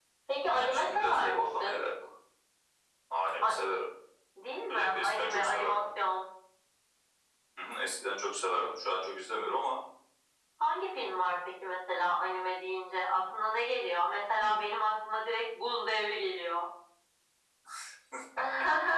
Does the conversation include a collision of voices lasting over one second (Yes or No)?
Yes